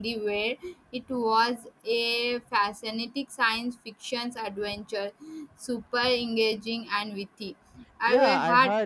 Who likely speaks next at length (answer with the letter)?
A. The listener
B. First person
A